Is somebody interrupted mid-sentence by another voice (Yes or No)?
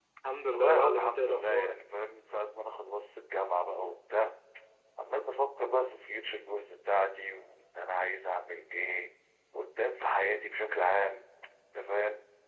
Yes